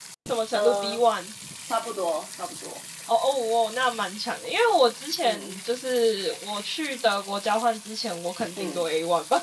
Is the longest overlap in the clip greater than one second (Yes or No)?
No